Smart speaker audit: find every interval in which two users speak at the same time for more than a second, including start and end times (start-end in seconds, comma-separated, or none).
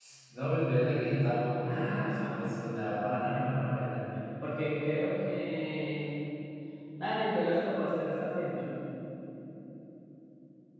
1.7-4.0